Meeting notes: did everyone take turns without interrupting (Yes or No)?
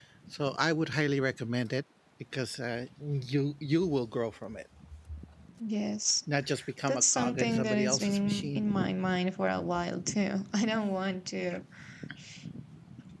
No